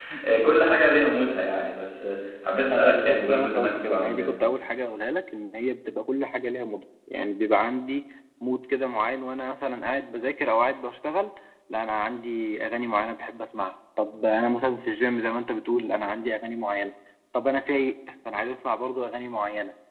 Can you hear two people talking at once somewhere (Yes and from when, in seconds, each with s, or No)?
Yes, from 2.7 s